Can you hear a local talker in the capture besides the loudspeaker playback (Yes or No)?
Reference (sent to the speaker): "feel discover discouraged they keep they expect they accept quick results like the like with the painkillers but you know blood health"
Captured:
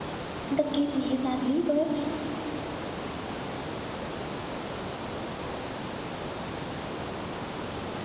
Yes